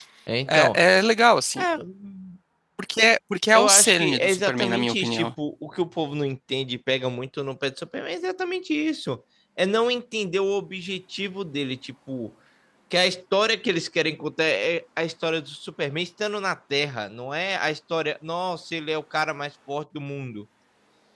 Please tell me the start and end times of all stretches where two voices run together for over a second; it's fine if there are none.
3.5-5.3

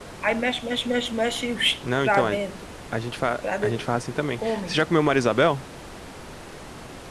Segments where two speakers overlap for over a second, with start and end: none

